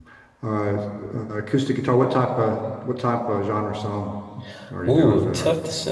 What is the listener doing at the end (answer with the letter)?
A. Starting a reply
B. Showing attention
A